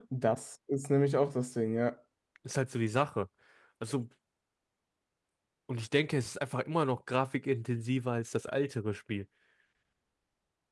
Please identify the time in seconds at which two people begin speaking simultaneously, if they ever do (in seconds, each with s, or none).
none